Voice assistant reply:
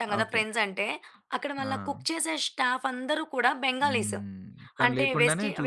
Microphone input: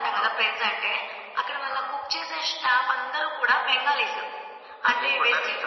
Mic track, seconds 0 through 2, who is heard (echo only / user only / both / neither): echo only